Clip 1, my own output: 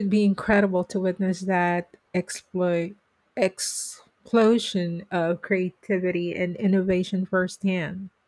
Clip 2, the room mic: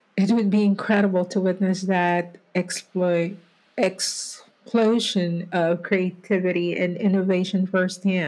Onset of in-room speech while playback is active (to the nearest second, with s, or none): none